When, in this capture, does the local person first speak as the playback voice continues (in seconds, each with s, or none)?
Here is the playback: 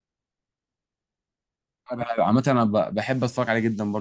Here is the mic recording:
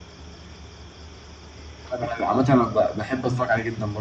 none